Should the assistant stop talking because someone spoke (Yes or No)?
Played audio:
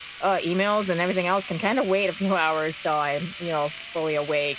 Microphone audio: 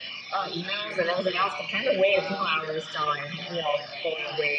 Yes